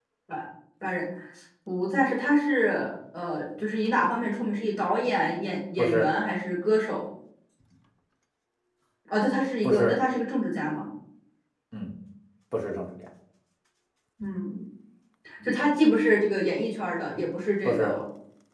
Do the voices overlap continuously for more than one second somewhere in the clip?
No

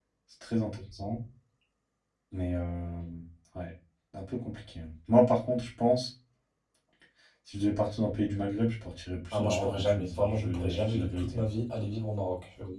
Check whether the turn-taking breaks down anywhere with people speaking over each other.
Yes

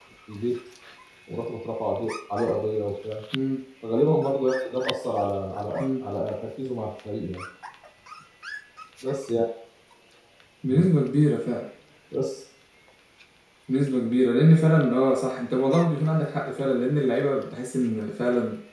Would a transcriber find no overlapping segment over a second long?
Yes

